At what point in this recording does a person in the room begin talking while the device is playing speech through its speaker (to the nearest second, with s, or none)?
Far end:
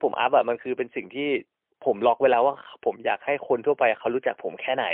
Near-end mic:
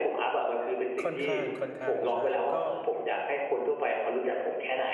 1 s